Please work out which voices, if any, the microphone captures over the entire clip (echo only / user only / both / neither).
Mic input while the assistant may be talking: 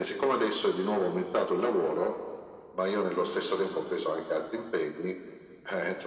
echo only